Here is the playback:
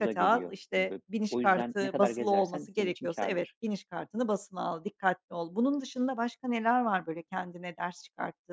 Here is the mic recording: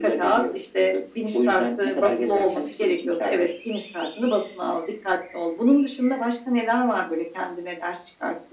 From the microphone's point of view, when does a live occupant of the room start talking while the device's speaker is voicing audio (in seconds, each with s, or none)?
none